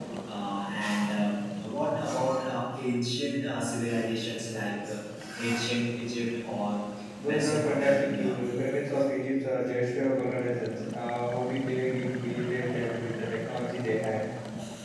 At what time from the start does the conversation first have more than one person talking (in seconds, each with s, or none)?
7.2 s